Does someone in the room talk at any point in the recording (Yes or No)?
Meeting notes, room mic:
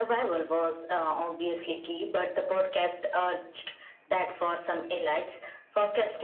No